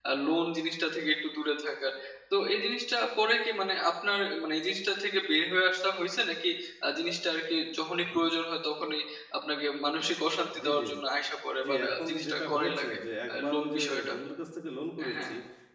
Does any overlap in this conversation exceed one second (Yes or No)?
Yes